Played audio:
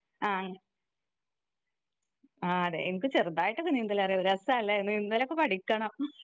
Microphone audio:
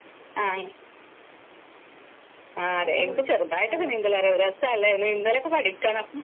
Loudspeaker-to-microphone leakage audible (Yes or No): Yes